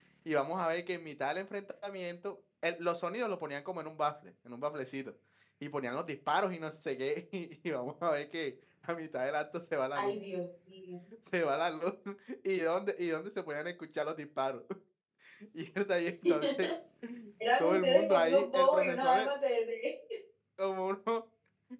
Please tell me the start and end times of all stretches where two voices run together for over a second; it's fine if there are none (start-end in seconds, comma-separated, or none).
17.6-19.3